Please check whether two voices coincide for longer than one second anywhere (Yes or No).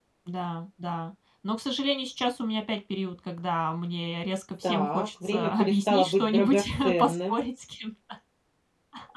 Yes